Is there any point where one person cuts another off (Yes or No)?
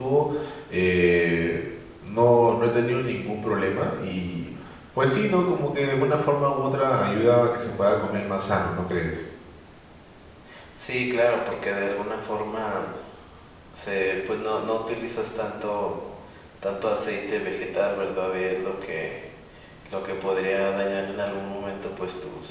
No